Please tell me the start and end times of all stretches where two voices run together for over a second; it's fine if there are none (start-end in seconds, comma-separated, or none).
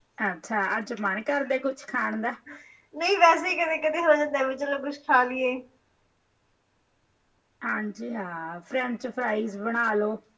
none